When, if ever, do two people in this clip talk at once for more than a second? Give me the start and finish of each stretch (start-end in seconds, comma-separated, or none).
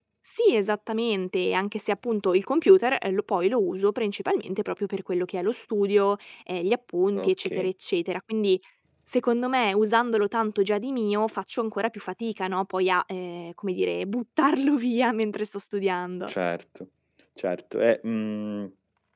none